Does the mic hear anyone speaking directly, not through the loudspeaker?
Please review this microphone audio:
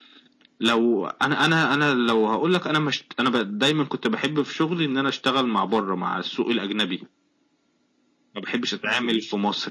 No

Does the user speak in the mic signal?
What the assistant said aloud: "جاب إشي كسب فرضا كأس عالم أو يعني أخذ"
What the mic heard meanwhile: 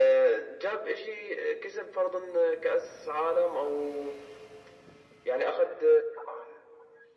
No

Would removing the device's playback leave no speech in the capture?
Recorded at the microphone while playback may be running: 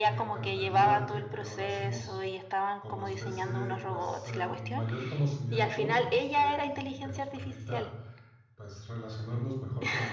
No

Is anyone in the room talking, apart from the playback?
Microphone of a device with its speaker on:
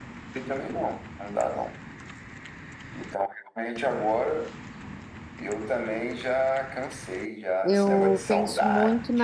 Yes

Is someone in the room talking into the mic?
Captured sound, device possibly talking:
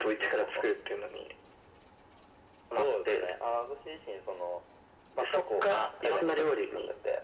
No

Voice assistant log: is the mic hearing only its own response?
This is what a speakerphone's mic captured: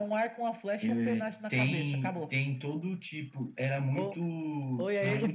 No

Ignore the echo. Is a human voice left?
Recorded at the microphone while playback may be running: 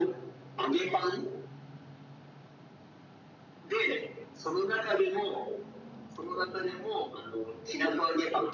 No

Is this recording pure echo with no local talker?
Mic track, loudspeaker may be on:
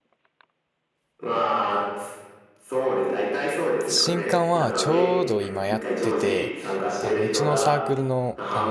No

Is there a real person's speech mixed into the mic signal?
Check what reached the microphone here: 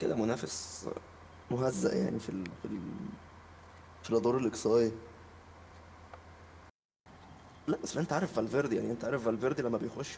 Yes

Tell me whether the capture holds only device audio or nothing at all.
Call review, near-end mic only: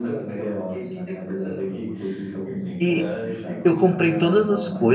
No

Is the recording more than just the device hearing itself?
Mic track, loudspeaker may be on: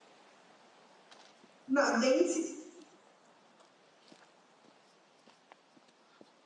Yes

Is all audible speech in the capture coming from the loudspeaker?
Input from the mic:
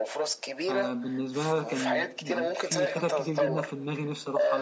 No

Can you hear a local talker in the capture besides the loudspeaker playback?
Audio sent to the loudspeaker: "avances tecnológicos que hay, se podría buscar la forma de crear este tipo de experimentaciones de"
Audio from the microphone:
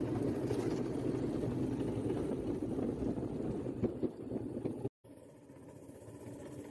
No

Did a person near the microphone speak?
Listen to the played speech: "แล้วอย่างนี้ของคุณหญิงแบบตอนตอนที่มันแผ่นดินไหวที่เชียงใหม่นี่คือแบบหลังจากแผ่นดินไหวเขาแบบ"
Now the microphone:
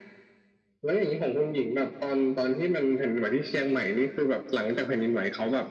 No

